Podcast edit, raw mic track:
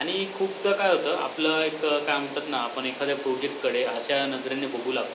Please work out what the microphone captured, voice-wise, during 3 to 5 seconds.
echo only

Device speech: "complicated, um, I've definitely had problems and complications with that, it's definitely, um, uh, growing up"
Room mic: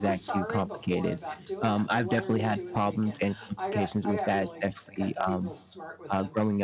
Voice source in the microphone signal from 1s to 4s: both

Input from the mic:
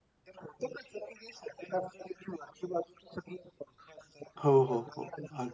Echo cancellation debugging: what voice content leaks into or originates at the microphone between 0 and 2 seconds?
echo only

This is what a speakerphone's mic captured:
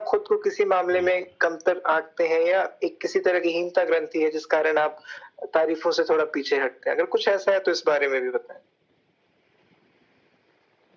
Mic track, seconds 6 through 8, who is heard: echo only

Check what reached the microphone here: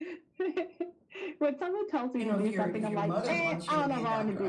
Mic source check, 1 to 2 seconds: echo only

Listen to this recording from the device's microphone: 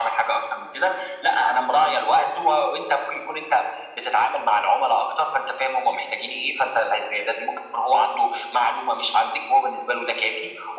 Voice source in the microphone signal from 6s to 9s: echo only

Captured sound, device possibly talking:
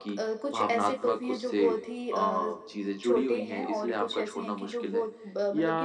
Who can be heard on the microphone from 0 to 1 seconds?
echo only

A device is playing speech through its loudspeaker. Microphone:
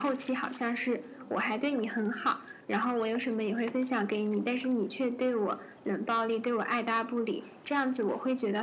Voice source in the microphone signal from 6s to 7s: echo only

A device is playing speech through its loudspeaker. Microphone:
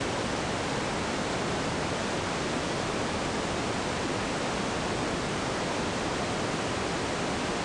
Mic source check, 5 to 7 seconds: neither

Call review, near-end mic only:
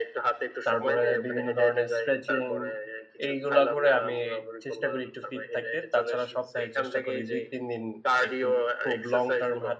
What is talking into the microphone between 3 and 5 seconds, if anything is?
both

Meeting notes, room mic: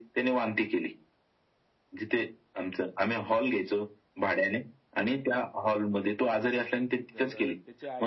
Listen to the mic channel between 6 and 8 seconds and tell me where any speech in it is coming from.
both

